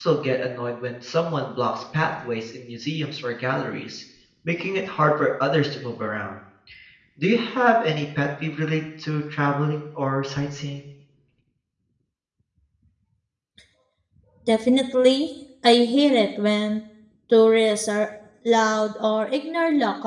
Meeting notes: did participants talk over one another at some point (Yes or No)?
No